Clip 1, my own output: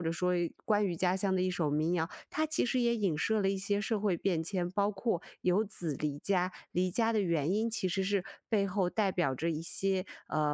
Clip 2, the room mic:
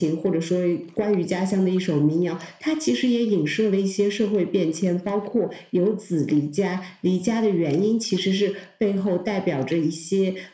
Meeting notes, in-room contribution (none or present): none